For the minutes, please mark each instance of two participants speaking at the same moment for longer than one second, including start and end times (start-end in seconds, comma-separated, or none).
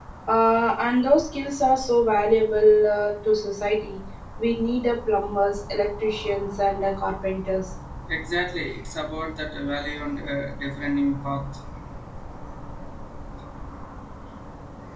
none